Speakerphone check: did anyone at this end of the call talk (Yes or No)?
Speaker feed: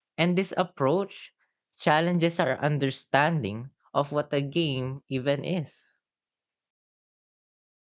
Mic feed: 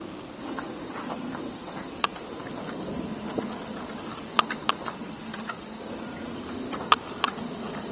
No